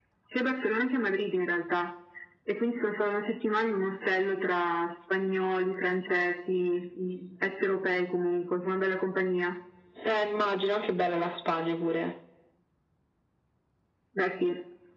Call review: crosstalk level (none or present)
none